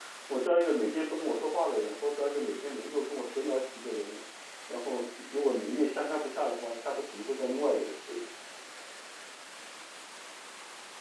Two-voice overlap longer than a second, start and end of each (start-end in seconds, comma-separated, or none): none